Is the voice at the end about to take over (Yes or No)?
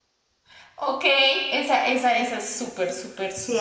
Yes